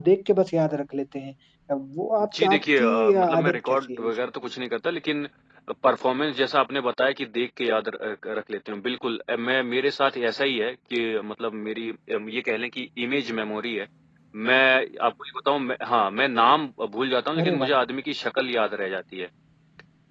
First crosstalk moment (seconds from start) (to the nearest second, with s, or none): 2 s